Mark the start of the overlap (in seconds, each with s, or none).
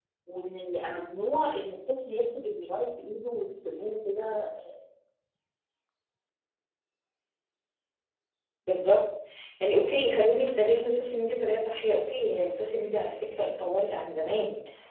none